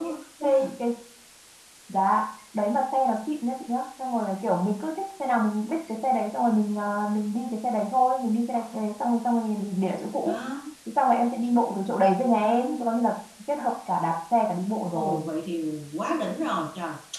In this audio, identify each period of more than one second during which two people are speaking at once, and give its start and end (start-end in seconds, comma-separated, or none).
none